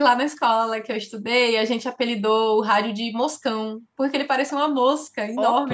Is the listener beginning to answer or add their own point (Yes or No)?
Yes